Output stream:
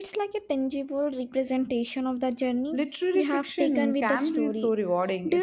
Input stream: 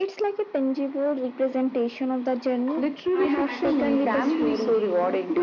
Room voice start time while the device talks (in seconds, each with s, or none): 3.1 s